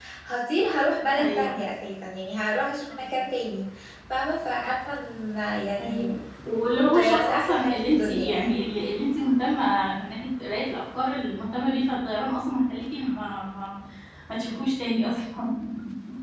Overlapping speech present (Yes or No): Yes